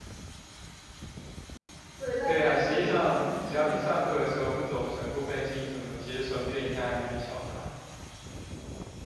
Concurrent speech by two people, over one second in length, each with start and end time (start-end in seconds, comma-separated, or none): 2.2-3.9